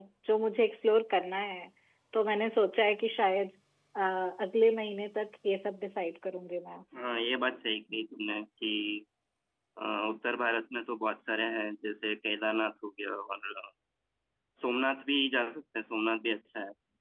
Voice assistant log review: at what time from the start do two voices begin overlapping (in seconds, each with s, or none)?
none